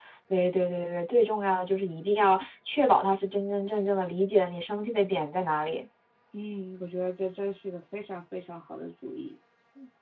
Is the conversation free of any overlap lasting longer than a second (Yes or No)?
Yes